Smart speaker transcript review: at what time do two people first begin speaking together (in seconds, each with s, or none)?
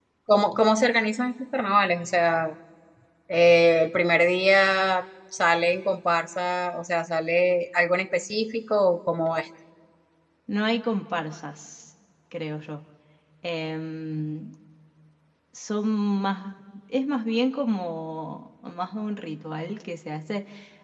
none